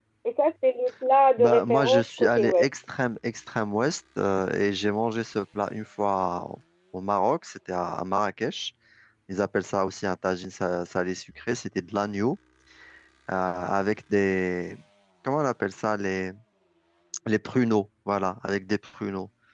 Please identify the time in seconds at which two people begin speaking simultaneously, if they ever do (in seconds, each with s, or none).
1.4 s